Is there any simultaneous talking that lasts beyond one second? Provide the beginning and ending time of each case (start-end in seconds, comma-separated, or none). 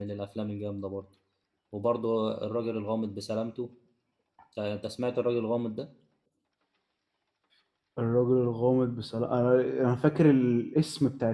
none